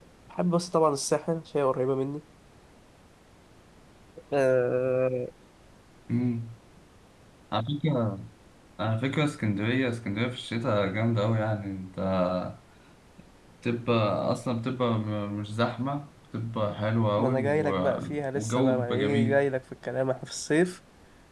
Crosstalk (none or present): present